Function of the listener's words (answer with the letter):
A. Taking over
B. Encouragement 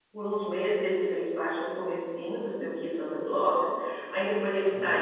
B